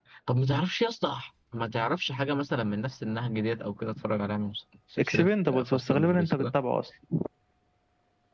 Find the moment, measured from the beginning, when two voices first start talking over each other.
5.0 s

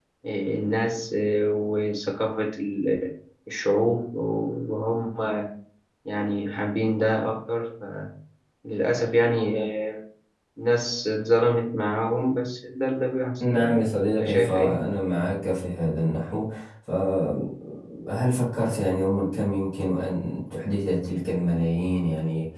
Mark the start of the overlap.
13.4 s

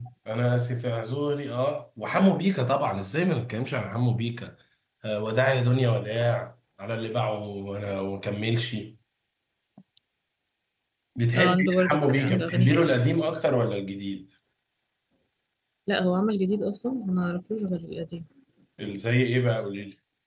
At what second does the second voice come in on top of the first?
11.3 s

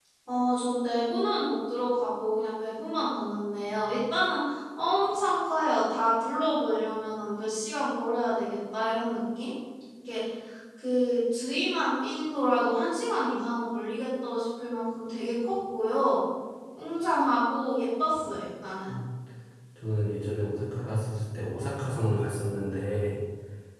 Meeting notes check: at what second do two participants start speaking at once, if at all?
none

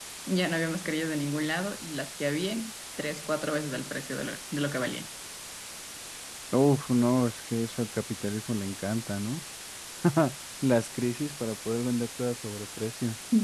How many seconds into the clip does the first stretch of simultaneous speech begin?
none

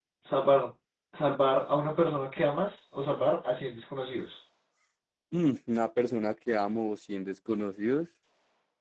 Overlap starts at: none

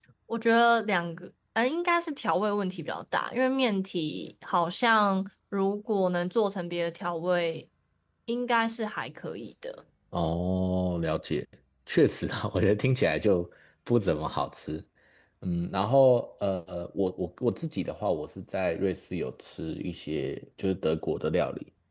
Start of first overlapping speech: none

